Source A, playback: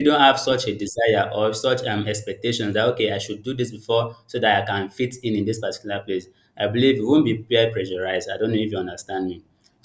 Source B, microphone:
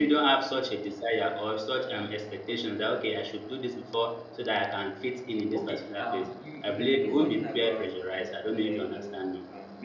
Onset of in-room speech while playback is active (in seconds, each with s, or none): 5.5 s